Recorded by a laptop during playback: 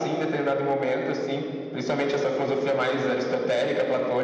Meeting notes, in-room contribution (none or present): none